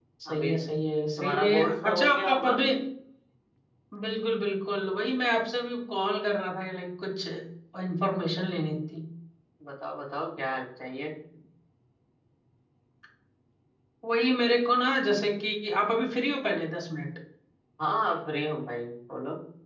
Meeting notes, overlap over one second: present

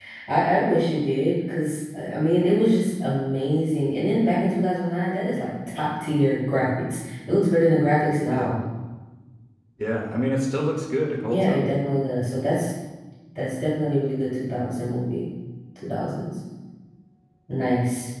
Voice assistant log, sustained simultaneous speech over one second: none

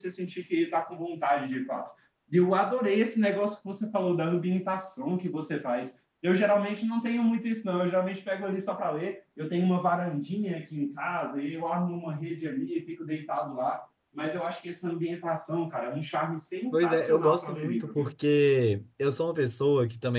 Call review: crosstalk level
present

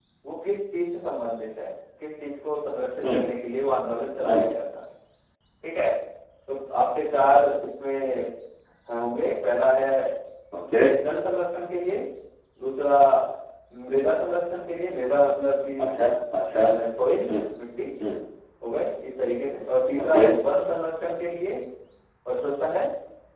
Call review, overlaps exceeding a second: none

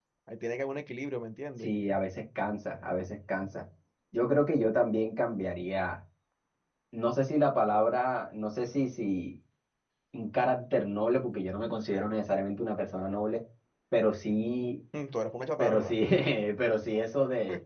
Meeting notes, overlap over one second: none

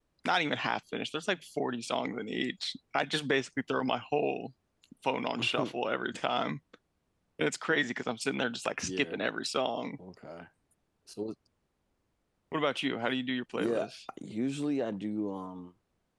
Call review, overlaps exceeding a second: none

